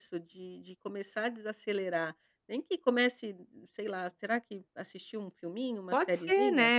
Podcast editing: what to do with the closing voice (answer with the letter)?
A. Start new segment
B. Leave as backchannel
A